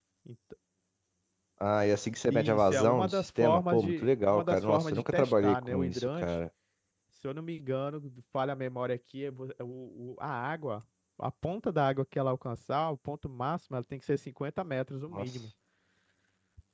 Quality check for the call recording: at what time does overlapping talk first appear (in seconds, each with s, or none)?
2.3 s